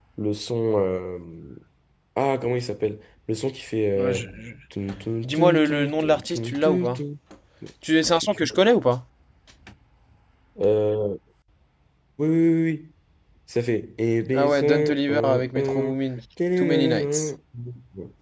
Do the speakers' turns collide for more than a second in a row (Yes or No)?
Yes